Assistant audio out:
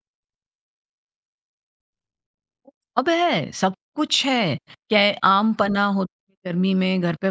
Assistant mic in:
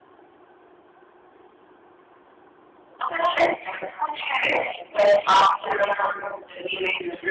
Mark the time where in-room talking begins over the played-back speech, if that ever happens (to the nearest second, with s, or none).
5 s